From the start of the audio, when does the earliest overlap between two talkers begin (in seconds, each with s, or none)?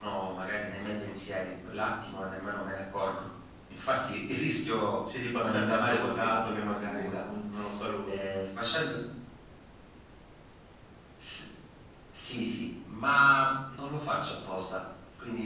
5.1 s